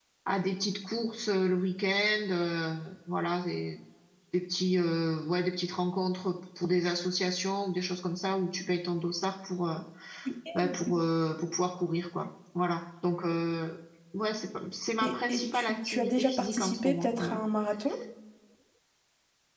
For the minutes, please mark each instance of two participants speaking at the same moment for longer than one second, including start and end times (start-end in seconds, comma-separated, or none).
15.0-17.4